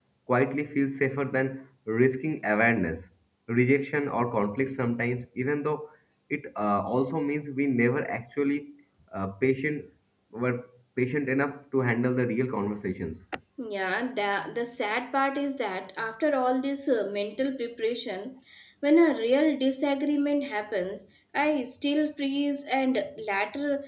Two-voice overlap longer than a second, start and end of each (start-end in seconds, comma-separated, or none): none